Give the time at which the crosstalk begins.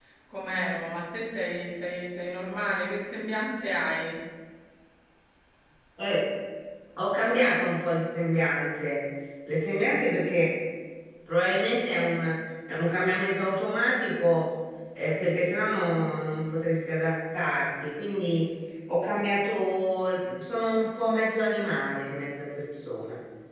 none

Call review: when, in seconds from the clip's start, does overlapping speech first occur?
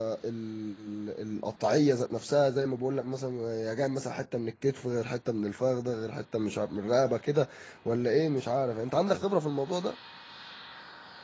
none

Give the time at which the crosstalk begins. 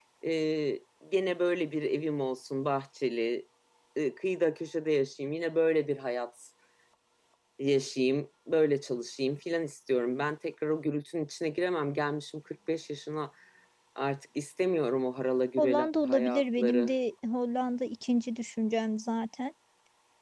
15.6 s

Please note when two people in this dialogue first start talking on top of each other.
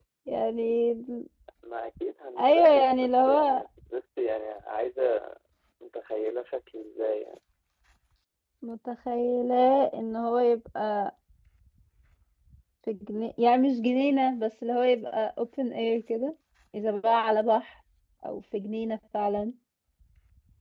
2.4 s

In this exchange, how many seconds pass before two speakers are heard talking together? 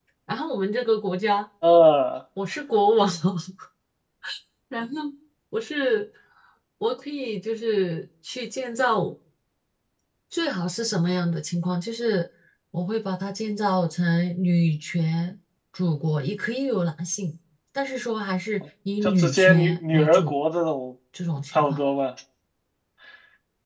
19.0 s

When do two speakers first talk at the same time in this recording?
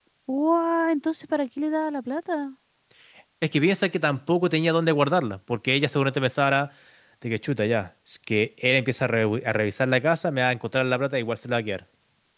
none

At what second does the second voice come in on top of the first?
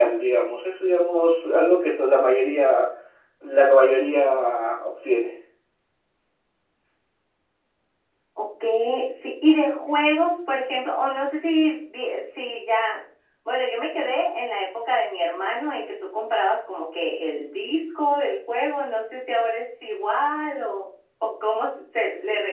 none

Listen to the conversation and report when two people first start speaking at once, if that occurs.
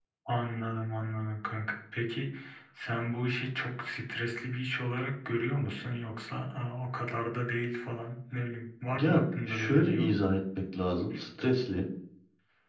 8.9 s

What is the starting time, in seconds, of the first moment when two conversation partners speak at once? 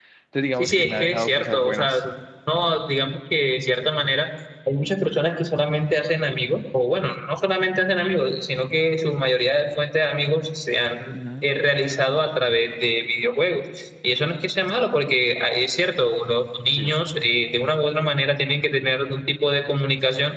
0.6 s

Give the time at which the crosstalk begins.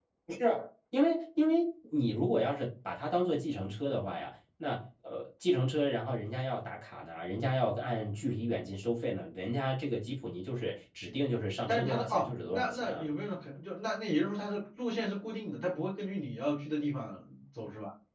11.7 s

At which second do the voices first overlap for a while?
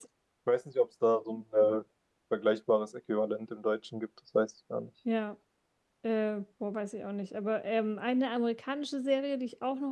none

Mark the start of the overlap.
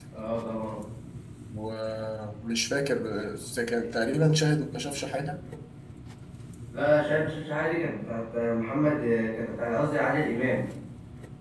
none

